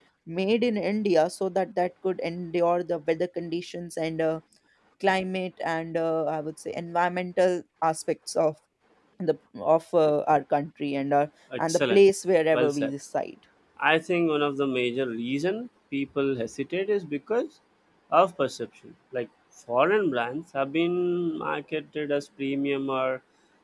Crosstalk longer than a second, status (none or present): none